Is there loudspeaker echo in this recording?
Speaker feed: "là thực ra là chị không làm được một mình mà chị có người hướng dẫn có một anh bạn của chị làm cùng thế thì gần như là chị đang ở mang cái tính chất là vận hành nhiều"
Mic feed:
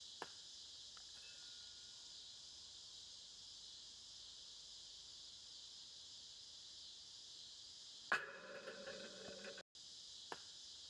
No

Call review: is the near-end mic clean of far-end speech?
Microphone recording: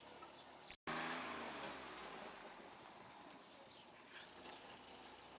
Yes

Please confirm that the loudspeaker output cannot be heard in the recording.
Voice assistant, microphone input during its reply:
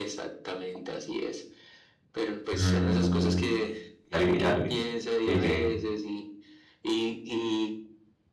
No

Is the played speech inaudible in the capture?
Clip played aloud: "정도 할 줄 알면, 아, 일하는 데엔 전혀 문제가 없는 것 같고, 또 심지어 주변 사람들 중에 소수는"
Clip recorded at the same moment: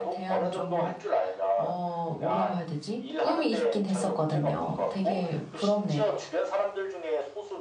No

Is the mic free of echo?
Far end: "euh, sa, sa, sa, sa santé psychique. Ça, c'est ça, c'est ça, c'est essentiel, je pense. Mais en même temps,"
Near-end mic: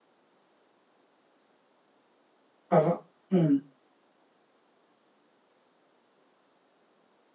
Yes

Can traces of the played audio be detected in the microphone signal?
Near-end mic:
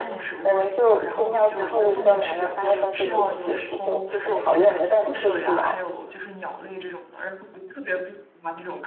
Yes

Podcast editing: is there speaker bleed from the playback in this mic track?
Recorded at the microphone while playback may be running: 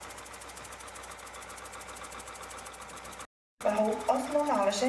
No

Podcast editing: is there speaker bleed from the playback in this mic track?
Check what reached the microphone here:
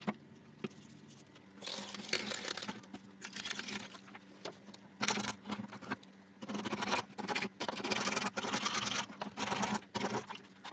No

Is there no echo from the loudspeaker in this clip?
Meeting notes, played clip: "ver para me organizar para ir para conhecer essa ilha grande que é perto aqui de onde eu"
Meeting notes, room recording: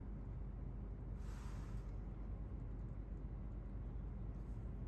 Yes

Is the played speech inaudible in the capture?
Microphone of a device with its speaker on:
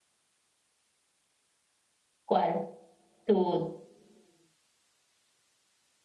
Yes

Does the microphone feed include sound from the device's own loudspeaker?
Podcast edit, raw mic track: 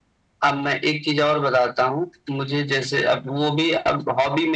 Yes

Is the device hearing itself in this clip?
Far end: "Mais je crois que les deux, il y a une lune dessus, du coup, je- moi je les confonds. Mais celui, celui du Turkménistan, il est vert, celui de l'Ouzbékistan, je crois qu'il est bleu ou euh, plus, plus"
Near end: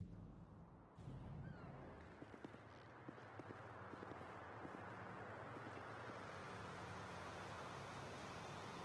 No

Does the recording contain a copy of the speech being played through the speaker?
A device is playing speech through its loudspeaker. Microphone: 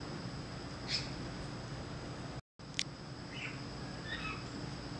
No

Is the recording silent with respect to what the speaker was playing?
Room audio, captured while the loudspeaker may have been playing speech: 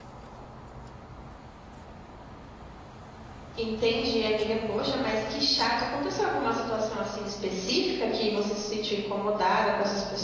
Yes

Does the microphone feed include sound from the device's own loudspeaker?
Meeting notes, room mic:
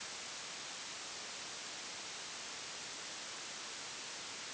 No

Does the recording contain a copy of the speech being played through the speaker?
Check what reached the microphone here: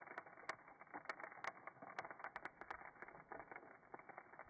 No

